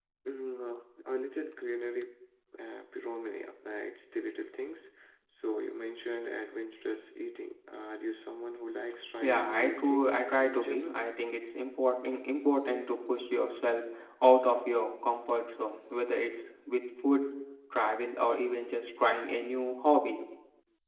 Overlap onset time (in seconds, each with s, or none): 9.2 s